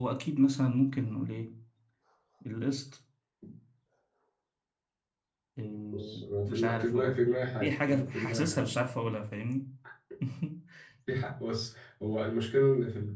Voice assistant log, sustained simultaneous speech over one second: present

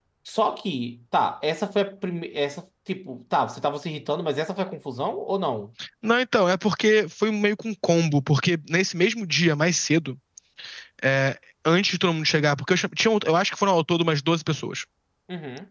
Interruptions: none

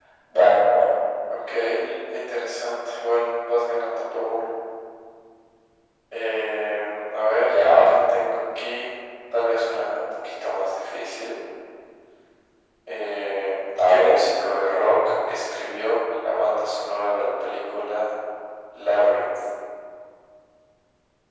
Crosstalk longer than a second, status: none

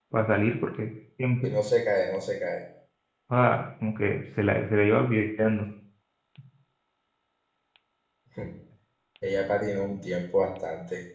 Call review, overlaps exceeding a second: none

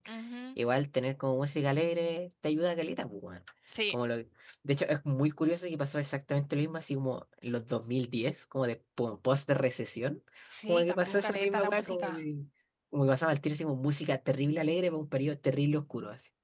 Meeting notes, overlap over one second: present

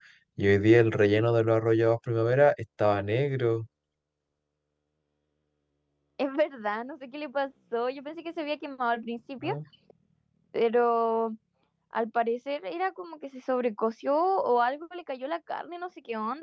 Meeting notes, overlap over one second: none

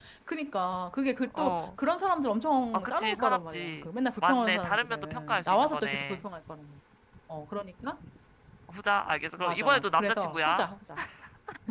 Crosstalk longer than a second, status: present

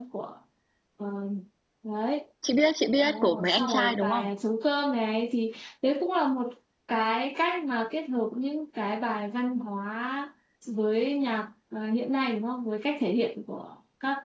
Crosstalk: present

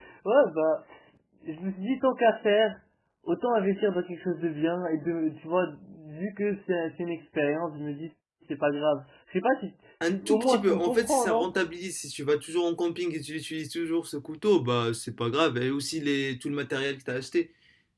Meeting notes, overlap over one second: present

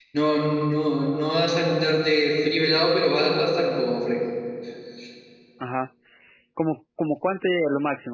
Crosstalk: none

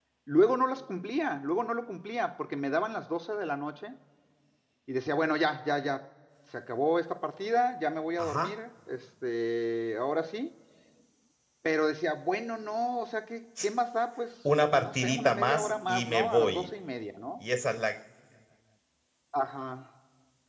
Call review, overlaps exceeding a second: present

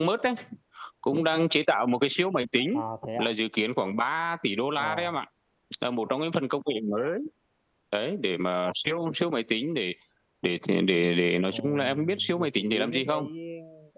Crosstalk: present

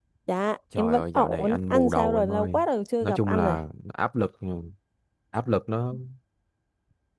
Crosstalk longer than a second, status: present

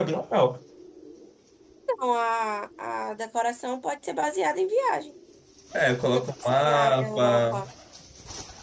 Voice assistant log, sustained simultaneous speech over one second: present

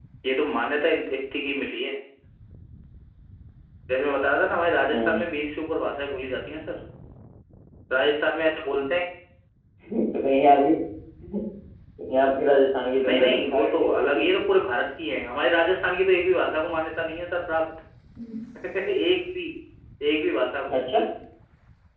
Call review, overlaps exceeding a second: present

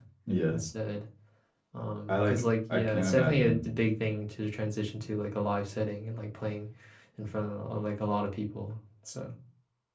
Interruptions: present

